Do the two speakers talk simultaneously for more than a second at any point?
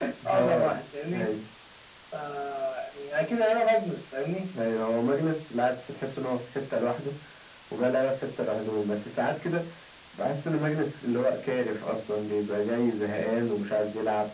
No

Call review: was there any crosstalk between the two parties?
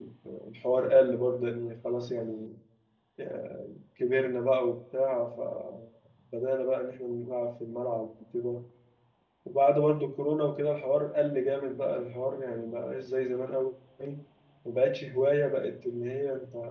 No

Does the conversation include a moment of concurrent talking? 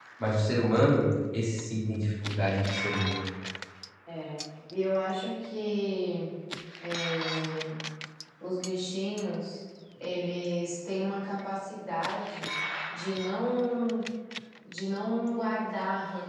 No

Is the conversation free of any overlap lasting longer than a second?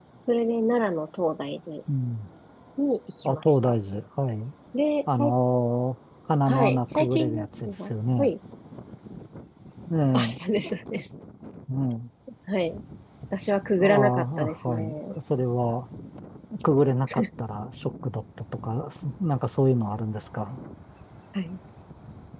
No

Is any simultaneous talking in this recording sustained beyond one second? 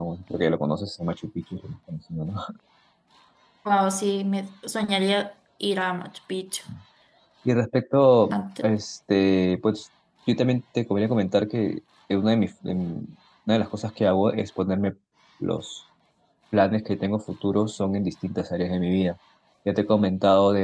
No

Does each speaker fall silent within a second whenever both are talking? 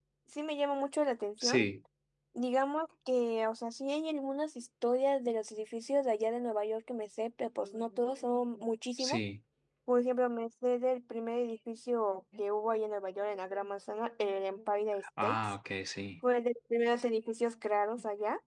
Yes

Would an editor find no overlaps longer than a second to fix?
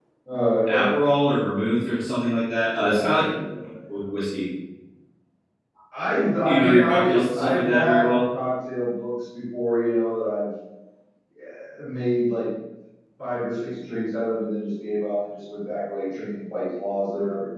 No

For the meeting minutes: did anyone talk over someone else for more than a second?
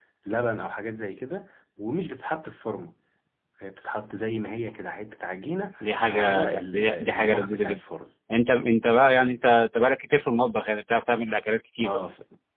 Yes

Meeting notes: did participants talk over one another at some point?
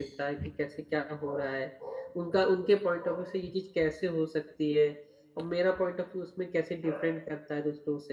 No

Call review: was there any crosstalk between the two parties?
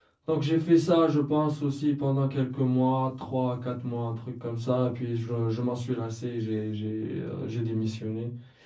No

